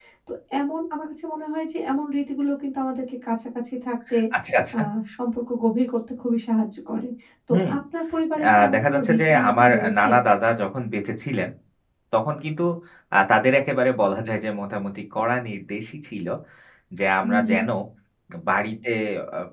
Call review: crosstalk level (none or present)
present